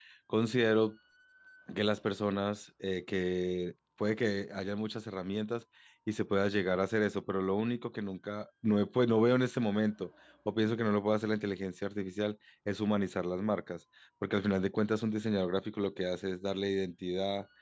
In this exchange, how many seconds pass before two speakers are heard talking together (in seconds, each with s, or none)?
none